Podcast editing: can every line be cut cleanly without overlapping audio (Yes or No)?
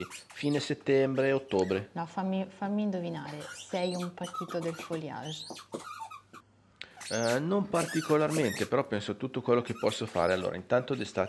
Yes